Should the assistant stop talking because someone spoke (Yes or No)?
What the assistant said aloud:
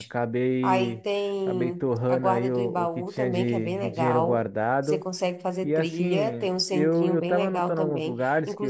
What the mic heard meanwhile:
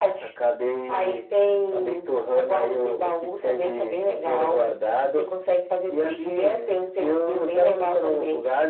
No